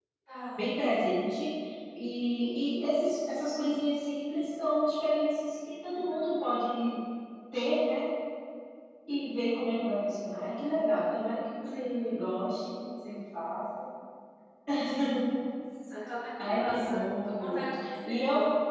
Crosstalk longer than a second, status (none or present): present